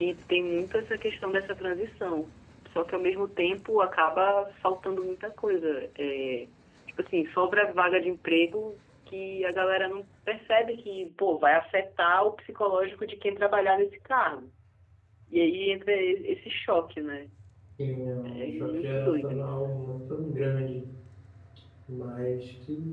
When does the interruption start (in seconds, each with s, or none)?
18.2 s